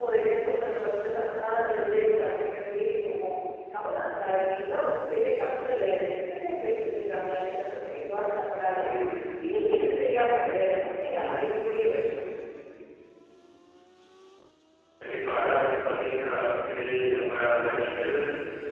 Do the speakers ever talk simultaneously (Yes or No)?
No